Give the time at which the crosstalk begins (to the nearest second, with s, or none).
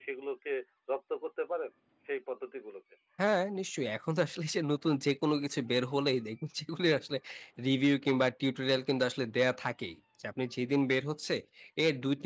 none